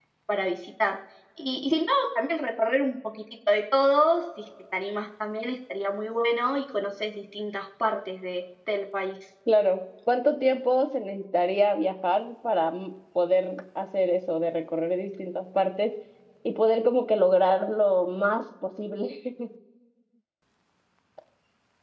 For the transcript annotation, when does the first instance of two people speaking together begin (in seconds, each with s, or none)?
none